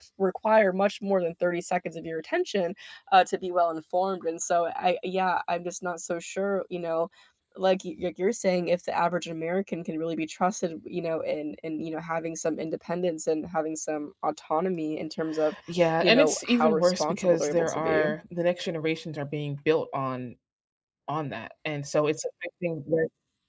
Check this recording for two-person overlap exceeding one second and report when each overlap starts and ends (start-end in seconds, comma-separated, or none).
16.0-18.1